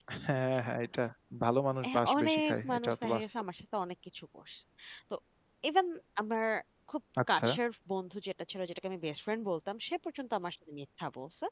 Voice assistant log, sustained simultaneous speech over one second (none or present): present